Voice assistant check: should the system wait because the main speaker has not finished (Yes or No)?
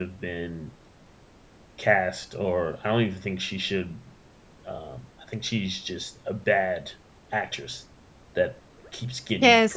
No